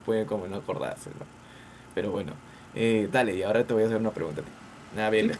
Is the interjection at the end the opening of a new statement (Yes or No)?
No